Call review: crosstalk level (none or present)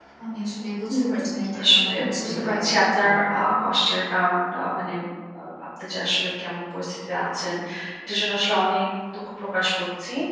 present